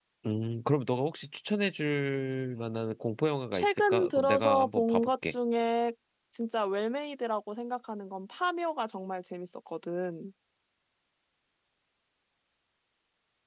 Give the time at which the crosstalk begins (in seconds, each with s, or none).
3.5 s